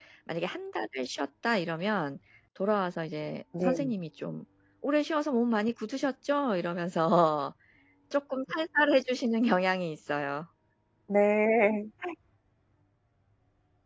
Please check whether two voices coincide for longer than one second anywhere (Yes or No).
No